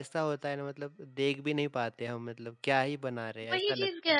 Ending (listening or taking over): taking over